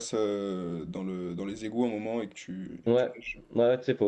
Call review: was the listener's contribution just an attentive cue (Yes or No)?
No